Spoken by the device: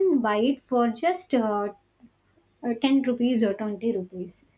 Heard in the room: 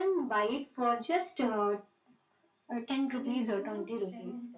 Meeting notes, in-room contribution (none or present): present